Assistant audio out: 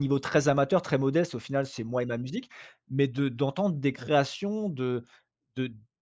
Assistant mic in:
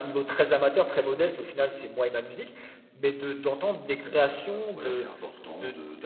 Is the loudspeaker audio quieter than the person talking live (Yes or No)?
No